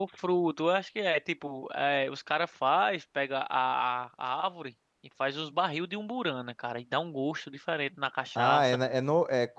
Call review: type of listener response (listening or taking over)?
taking over